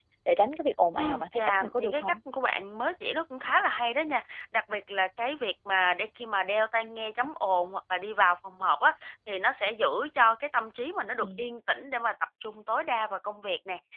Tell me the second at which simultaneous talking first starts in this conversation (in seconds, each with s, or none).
1.0 s